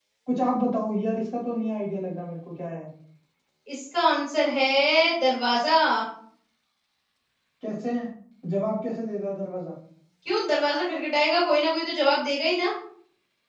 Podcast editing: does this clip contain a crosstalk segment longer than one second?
No

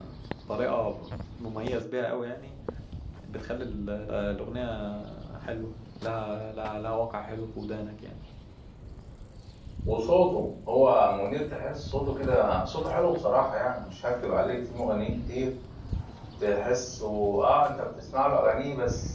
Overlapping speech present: No

